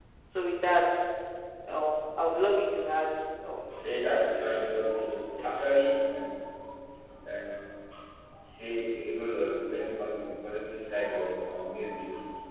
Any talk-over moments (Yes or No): Yes